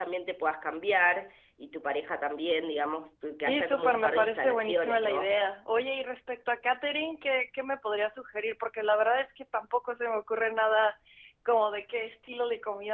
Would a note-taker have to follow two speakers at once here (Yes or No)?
Yes